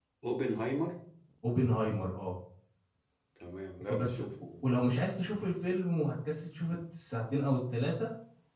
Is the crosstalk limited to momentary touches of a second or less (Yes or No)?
Yes